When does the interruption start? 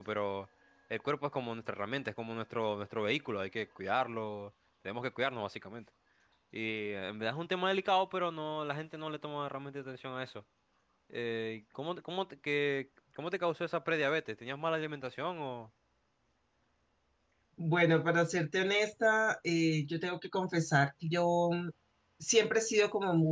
none

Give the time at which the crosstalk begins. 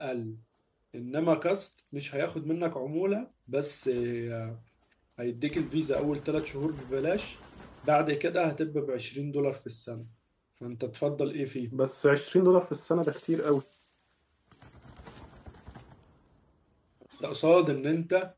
none

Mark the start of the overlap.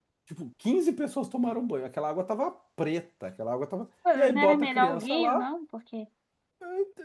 4.0 s

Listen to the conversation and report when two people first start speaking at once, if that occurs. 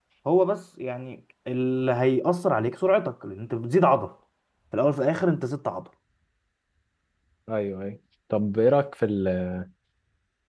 none

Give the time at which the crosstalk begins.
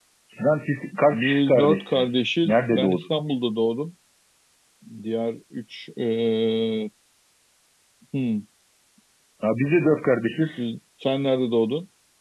1.1 s

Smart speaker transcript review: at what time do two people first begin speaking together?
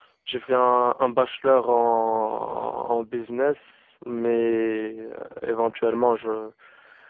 none

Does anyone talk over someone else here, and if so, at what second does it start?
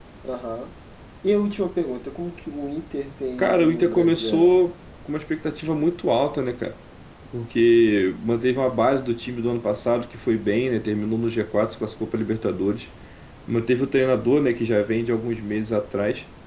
3.4 s

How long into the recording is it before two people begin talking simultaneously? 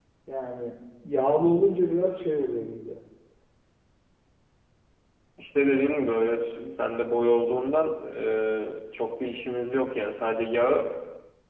none

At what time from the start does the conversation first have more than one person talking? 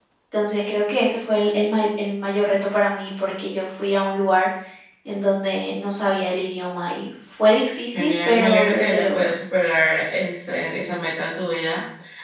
7.9 s

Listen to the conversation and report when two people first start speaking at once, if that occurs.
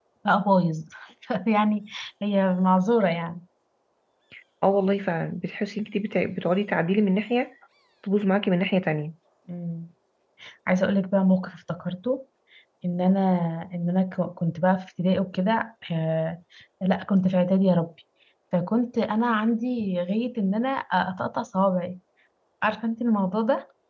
none

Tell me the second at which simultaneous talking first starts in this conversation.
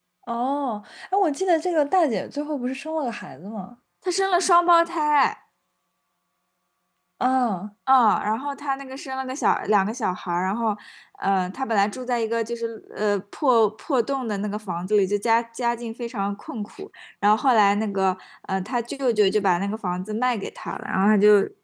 none

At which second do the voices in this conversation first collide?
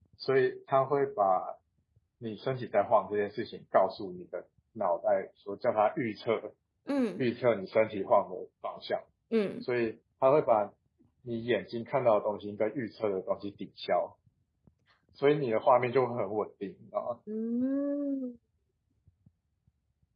none

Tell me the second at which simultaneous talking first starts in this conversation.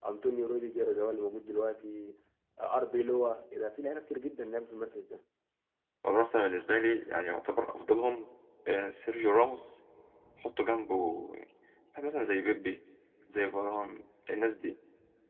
none

